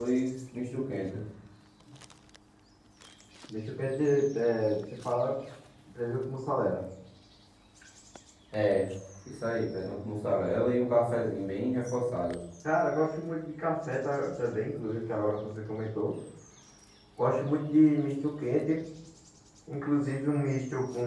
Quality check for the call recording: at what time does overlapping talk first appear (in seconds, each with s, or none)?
none